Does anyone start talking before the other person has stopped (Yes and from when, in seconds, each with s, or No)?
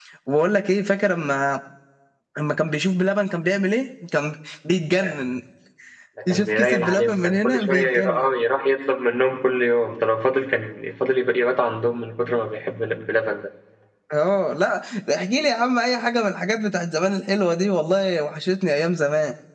Yes, from 6.3 s